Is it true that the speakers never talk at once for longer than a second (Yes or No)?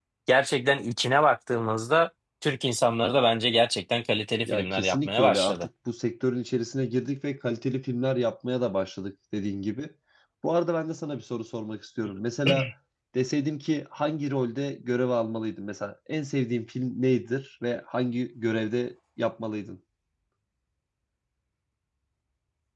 No